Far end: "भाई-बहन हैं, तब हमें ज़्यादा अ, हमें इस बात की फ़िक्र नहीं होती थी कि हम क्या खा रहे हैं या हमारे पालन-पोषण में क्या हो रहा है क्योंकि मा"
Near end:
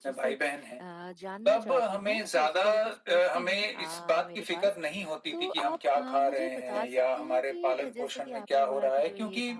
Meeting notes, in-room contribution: present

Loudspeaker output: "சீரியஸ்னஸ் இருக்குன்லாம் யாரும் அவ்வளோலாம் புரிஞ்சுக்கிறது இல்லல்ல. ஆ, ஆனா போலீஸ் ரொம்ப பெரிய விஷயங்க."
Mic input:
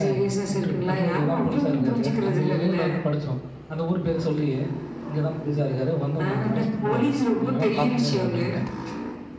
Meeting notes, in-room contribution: present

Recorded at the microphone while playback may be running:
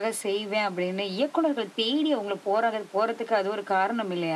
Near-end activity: none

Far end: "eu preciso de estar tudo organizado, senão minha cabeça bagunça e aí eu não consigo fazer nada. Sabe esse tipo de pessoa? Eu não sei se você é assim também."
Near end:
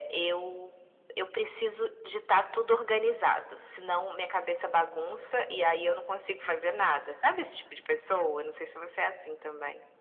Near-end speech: none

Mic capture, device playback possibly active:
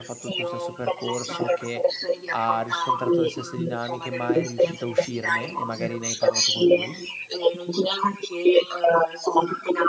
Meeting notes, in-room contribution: present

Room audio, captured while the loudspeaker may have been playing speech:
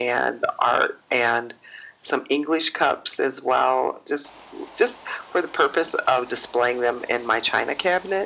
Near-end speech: none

